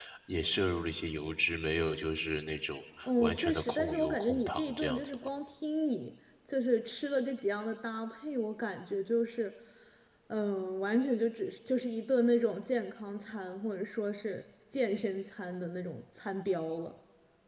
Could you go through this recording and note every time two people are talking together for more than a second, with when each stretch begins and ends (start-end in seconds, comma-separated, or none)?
3.2-5.3